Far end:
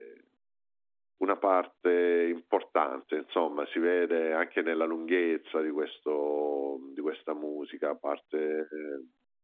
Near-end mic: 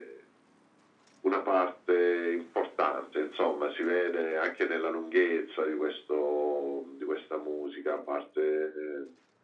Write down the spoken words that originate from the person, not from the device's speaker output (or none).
none